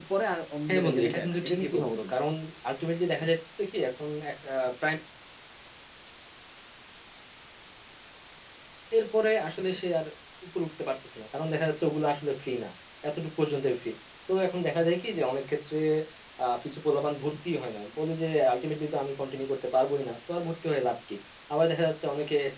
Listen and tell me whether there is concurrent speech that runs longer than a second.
Yes, from 0.7 s

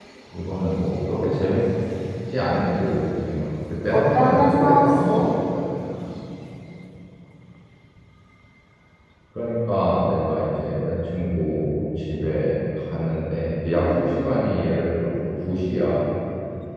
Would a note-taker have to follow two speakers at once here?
Yes, from 3.9 s

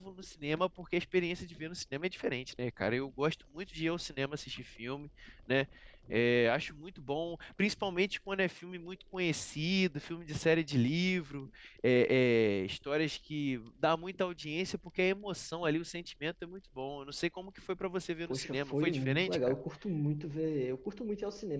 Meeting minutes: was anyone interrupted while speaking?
Yes, from 18.3 s

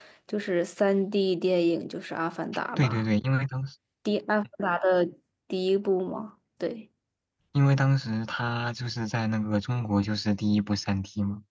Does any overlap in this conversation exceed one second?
No

